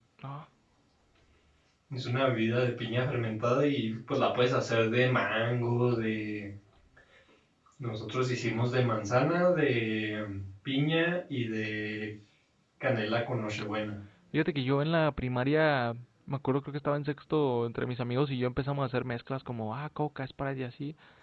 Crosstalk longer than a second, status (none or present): none